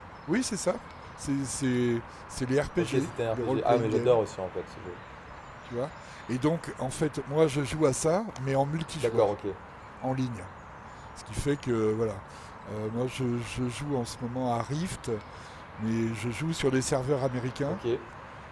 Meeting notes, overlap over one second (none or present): present